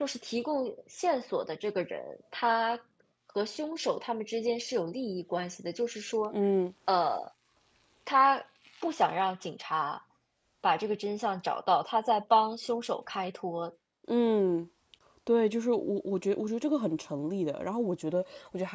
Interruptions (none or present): none